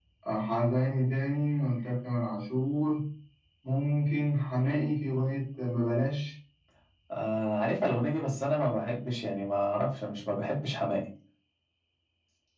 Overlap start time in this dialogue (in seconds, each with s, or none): none